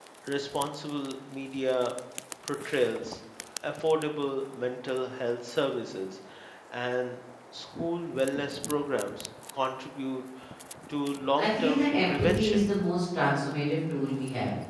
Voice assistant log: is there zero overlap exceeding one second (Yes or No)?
No